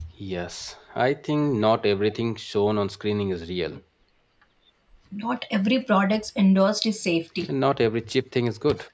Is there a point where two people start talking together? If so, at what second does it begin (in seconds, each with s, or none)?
none